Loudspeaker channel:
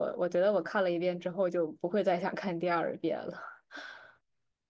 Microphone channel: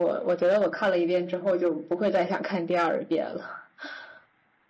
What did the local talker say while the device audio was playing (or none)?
none